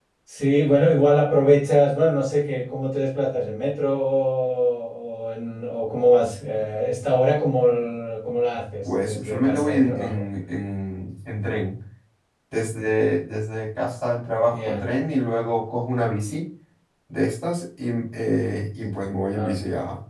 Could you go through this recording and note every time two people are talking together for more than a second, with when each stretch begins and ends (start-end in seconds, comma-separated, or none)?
8.8-10.2